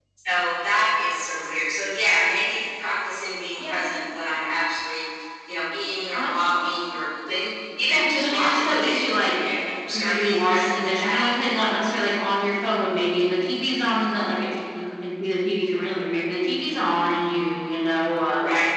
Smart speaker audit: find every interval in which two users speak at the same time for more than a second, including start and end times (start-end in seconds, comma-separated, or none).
7.9-9.3, 9.9-12.1